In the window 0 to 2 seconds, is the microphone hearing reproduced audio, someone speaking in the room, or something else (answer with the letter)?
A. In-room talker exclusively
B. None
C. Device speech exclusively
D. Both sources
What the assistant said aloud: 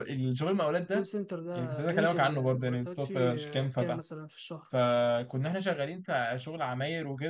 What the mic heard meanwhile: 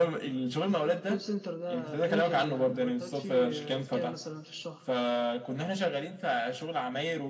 C